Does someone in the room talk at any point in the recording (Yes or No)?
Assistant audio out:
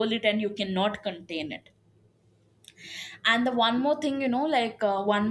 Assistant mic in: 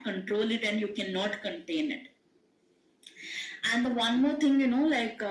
No